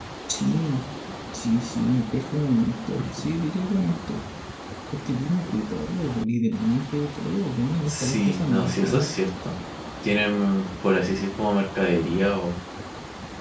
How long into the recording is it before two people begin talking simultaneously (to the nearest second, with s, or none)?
8 s